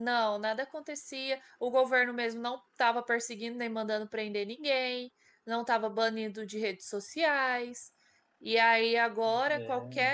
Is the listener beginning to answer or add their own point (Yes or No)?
No